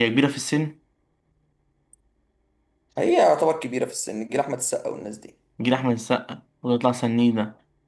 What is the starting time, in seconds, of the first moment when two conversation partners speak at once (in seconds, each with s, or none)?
none